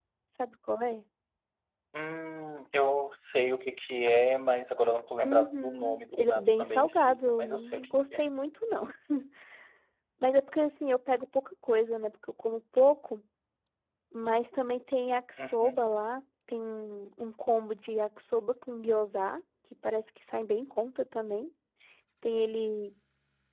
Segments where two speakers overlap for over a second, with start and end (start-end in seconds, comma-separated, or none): 5.2-8.2